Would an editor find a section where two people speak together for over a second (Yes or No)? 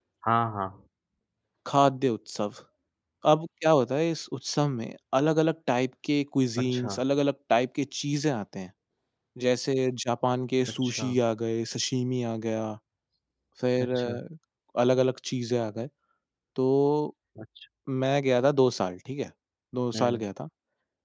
No